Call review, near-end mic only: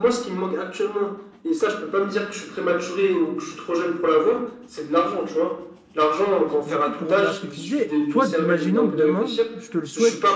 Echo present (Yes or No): Yes